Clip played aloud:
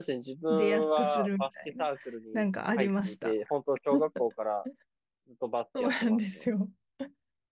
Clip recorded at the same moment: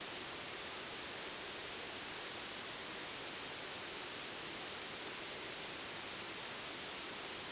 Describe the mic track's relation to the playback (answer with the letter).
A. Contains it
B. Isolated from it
B